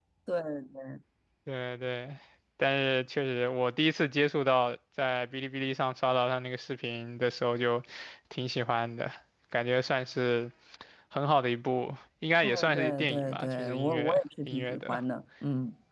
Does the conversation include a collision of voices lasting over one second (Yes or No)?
Yes